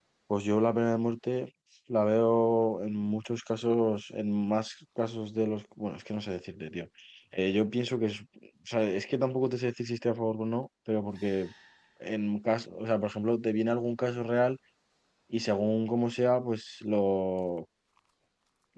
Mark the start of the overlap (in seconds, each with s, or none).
none